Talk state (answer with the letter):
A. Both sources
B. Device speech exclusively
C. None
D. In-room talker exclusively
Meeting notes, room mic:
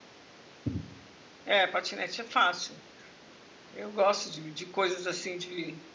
D